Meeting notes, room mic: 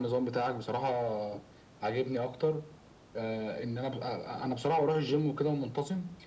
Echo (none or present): present